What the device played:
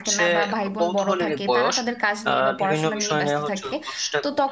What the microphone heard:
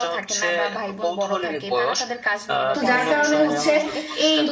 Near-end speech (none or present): present